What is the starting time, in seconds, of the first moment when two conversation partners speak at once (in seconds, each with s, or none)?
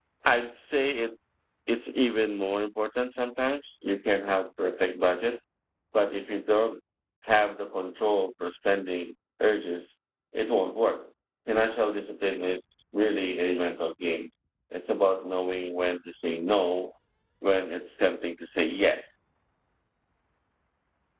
none